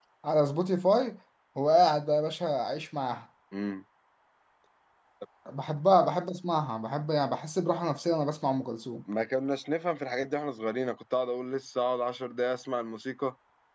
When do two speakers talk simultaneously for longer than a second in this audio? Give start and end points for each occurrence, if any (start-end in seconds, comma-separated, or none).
none